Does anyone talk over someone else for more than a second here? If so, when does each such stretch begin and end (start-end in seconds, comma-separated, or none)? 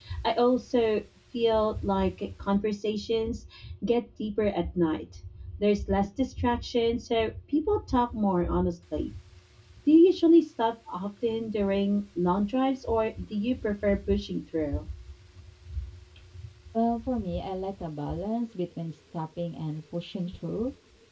none